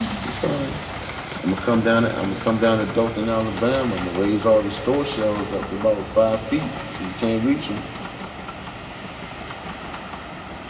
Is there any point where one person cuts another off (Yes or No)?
No